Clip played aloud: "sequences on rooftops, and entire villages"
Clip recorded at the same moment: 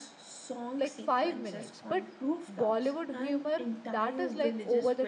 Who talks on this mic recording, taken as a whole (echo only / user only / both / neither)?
both